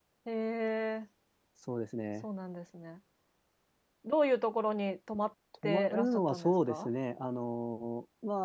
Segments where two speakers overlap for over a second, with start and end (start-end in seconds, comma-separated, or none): 5.6-6.9